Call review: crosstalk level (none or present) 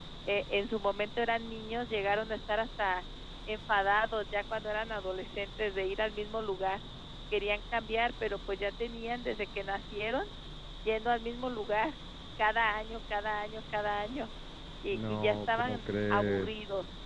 present